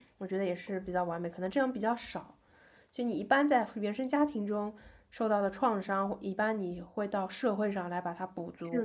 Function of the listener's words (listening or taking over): taking over